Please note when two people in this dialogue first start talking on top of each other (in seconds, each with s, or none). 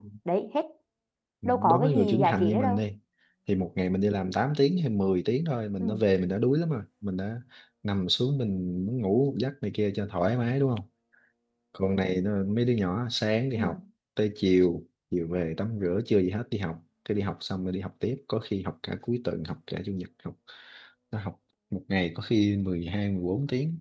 1.4 s